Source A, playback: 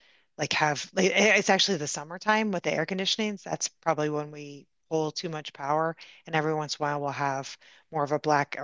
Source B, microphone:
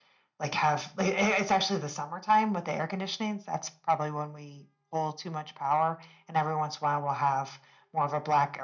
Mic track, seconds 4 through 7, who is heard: echo only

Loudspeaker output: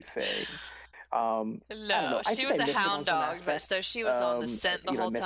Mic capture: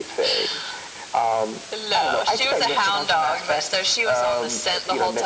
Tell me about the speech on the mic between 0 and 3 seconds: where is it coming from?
echo only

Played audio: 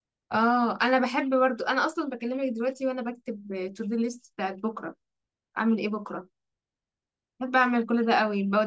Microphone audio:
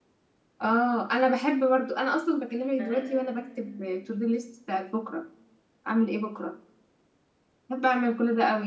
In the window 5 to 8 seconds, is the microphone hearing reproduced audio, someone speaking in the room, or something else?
echo only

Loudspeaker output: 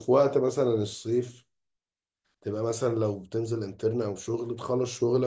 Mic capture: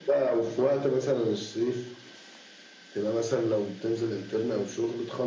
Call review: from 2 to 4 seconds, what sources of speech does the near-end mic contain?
echo only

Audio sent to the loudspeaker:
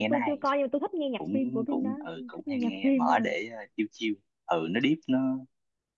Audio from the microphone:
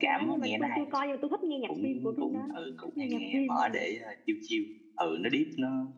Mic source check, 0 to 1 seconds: echo only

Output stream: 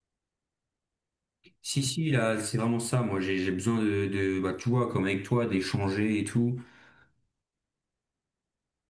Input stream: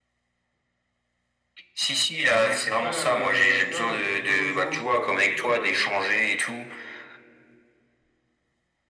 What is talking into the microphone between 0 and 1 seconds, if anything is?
neither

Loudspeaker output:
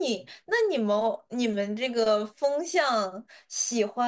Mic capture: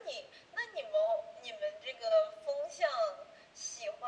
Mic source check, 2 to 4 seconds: echo only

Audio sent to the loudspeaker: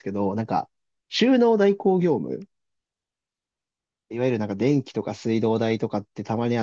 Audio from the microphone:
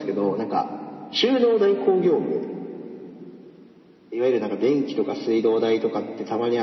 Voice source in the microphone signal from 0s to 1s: echo only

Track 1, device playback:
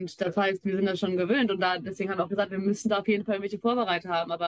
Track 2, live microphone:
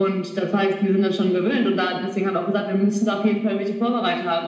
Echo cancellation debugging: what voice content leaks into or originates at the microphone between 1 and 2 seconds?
echo only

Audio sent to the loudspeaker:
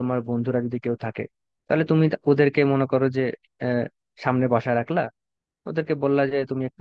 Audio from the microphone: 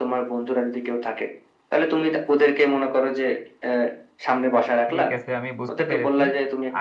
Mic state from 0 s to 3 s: echo only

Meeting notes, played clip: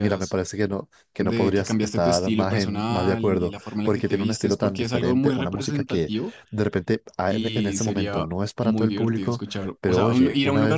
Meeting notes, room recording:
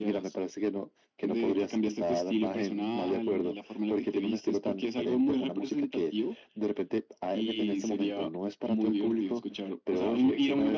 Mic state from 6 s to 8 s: echo only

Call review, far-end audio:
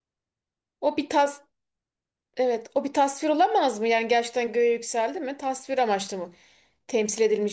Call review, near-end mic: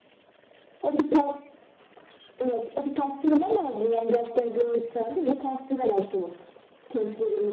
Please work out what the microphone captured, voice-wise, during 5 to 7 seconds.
echo only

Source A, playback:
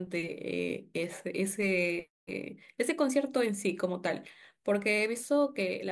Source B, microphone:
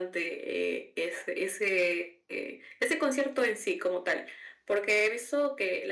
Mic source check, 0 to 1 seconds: echo only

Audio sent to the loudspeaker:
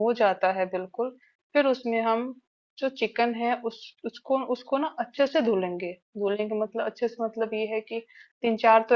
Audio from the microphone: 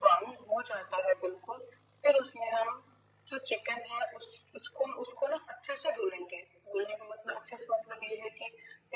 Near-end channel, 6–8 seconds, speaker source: echo only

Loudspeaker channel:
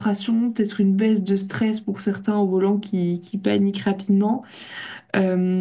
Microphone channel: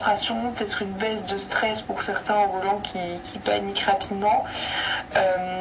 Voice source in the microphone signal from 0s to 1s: echo only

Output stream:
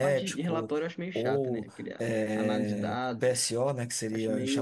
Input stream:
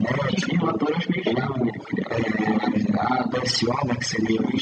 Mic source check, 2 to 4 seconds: echo only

